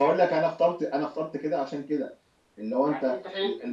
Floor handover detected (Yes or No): Yes